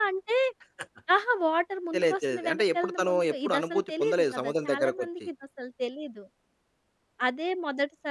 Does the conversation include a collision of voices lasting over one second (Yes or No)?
Yes